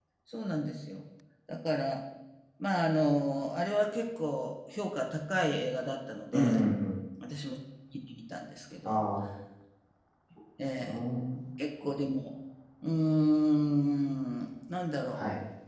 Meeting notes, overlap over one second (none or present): none